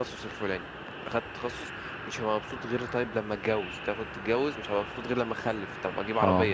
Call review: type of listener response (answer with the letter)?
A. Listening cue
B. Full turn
A